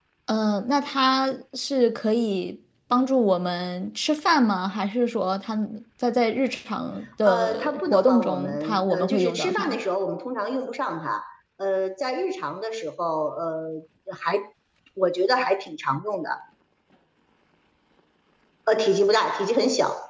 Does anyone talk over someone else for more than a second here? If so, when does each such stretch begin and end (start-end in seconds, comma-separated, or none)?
7.2-9.8